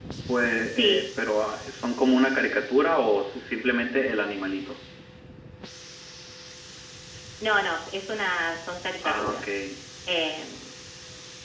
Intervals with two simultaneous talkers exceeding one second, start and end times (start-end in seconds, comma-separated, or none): none